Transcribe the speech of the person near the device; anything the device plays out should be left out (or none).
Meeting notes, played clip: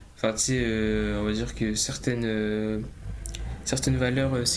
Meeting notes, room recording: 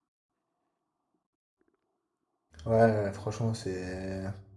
Ouais, franchement, c'est.